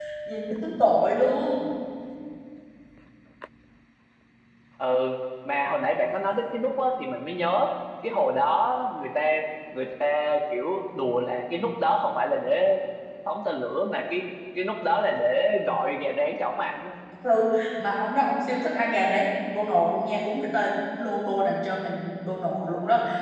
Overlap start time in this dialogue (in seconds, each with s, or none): none